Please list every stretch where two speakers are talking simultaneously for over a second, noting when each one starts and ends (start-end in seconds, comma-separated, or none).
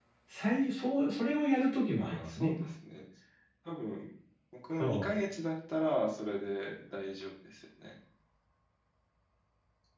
none